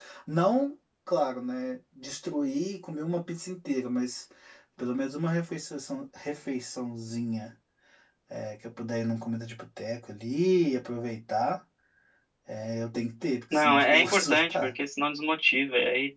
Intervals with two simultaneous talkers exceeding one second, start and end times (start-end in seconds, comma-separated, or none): 13.5-14.7